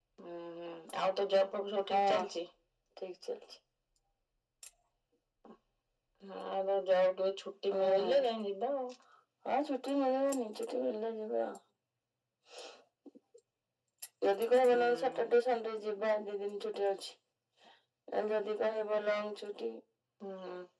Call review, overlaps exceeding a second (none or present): none